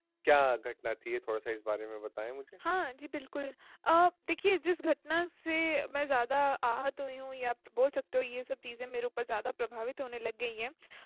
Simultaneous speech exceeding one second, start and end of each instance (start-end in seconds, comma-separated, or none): none